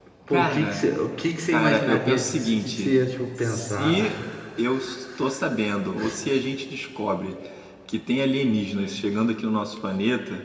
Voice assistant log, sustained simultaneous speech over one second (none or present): present